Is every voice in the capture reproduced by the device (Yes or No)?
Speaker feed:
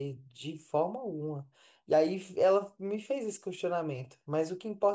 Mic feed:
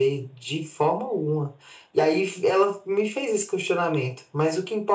Yes